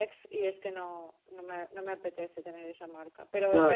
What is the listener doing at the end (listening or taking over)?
listening